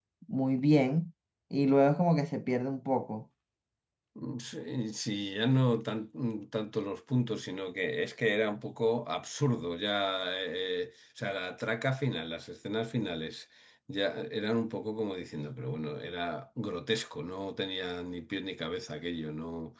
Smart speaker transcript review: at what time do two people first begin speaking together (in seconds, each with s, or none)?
none